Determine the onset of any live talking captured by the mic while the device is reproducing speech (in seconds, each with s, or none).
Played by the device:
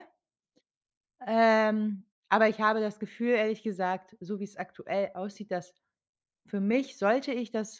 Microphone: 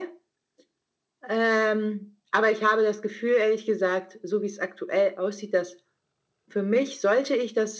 none